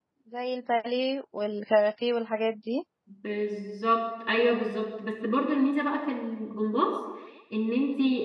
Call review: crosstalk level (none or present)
none